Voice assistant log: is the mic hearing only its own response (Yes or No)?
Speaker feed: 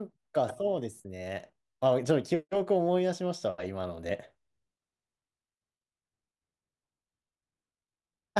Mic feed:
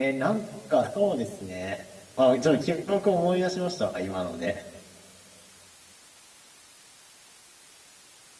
Yes